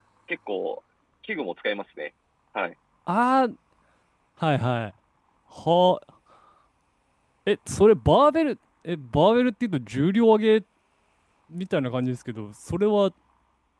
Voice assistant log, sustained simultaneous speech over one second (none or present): none